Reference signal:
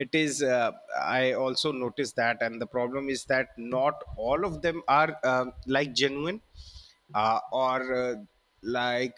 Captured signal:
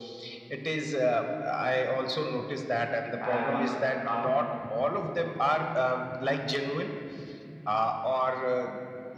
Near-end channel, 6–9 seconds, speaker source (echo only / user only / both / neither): echo only